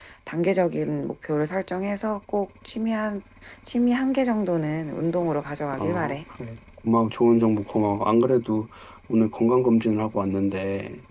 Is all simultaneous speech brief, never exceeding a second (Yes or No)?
Yes